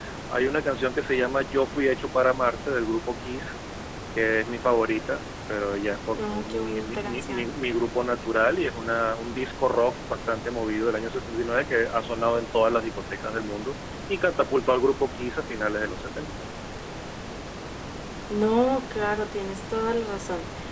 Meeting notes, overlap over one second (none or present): present